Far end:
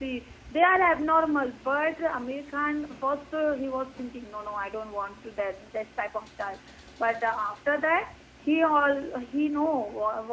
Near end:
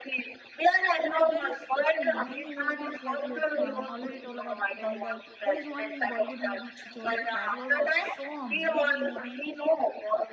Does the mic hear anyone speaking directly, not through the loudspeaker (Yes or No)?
Yes